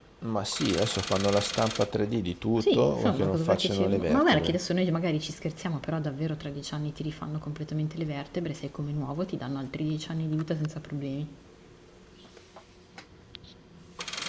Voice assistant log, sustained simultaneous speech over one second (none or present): present